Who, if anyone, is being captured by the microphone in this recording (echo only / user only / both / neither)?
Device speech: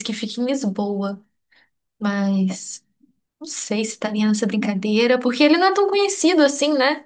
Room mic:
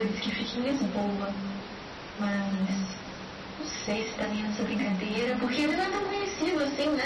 echo only